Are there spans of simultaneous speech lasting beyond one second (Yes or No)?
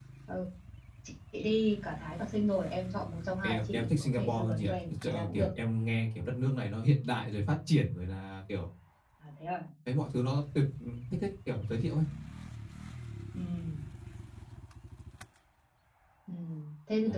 Yes